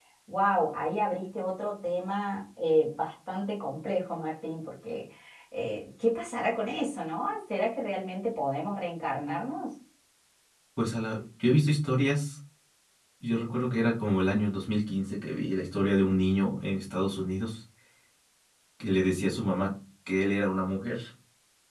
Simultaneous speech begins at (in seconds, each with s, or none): none